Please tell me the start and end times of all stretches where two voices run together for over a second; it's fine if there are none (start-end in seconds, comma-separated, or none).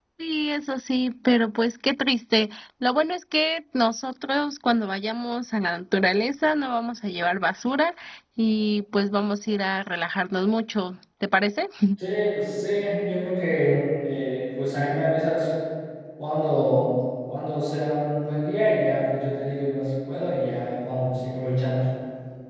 none